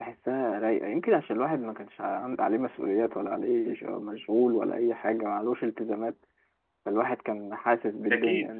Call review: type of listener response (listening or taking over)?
listening